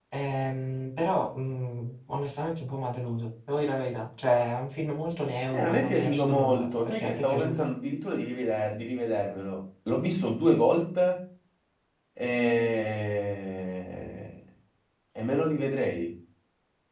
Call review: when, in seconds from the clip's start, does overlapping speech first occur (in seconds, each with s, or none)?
5.5 s